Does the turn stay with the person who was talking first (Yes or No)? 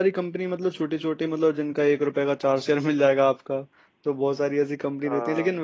Yes